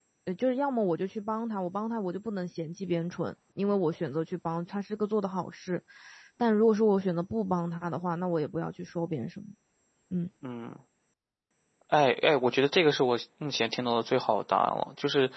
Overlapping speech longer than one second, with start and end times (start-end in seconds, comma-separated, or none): none